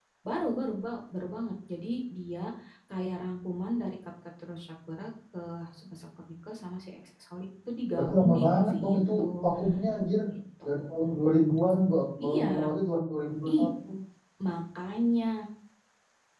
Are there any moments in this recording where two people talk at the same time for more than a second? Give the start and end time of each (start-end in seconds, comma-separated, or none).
8.0-9.2